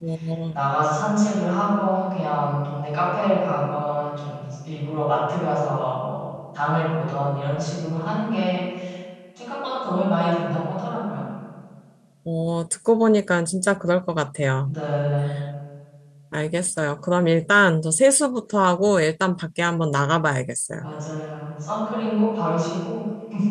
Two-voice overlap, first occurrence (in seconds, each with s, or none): none